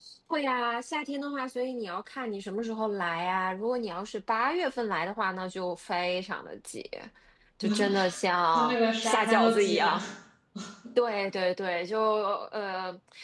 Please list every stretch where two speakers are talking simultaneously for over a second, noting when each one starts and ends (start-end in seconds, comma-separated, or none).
8.5-10.0